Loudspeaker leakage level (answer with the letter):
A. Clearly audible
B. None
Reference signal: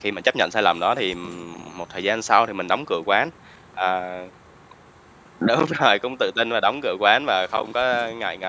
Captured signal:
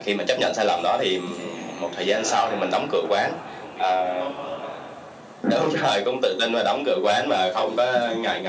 A